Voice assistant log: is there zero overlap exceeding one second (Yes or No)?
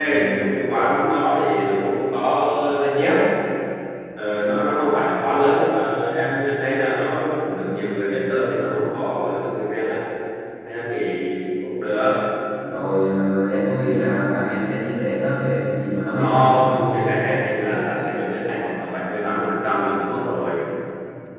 Yes